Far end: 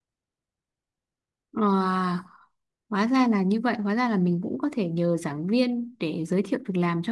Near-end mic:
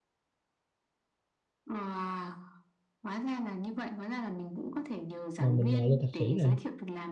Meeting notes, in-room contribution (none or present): present